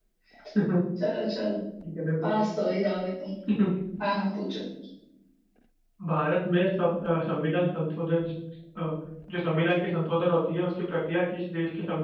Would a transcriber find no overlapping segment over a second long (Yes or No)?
Yes